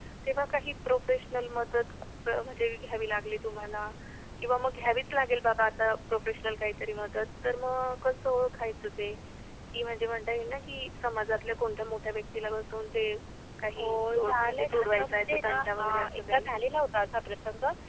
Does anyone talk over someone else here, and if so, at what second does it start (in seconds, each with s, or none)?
13.8 s